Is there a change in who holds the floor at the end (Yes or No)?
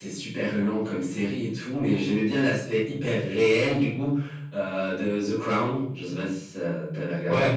Yes